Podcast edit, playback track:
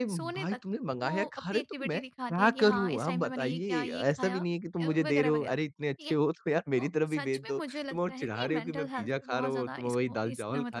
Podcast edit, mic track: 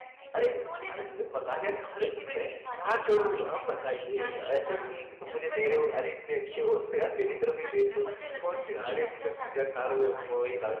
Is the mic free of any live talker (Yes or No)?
Yes